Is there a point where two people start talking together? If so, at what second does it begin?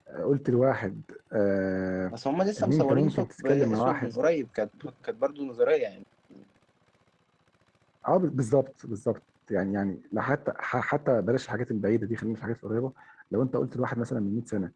2.6 s

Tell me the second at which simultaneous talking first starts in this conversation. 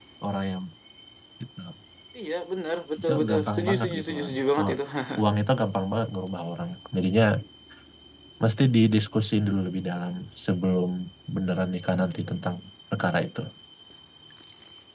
3.0 s

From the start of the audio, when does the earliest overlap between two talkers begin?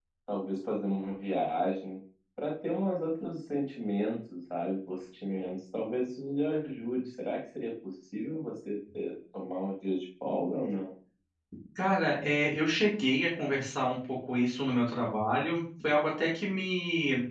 none

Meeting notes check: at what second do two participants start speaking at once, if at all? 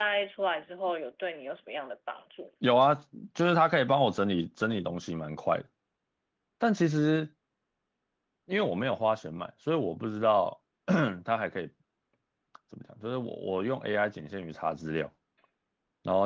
none

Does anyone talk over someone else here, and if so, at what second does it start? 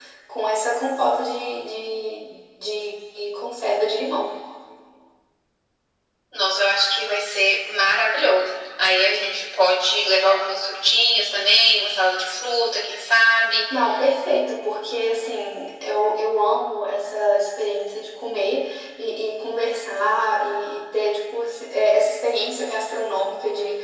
none

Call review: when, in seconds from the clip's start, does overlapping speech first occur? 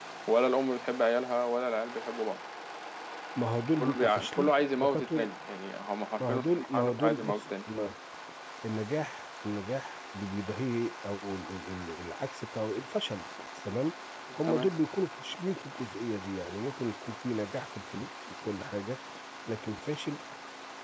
3.8 s

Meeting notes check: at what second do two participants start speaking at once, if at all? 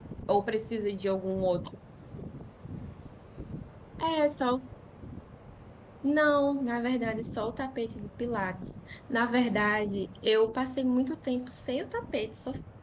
none

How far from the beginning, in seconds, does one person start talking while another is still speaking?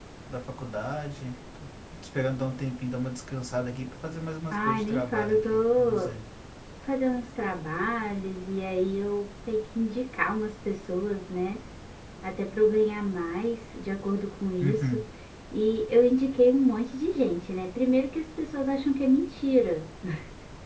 4.5 s

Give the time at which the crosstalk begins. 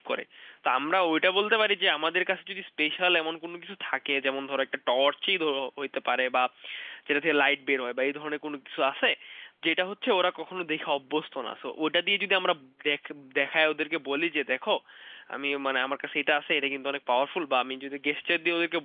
none

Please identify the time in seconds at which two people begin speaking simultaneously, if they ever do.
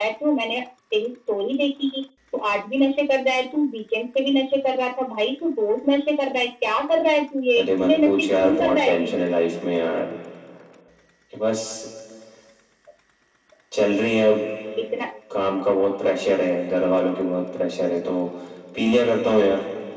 7.5 s

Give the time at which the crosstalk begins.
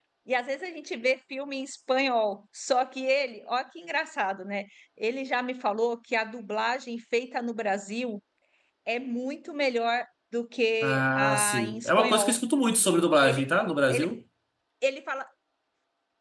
10.8 s

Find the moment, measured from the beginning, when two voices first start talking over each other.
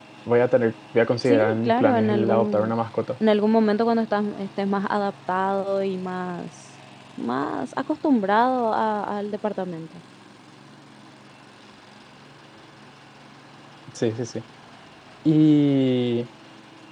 1.2 s

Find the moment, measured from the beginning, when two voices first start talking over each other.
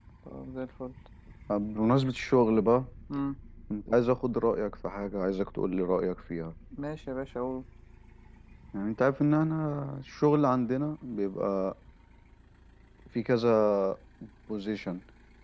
none

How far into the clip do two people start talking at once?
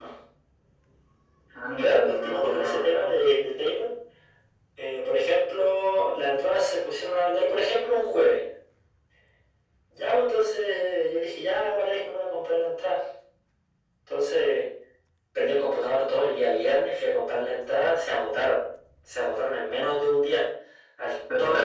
1.8 s

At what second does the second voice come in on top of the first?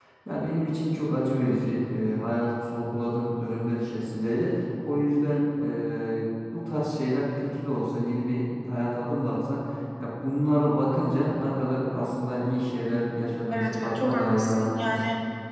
13.5 s

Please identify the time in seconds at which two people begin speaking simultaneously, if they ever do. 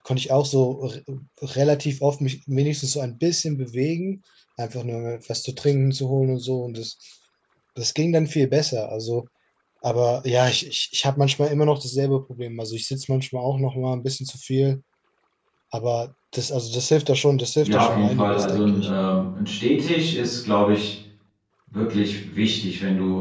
17.6 s

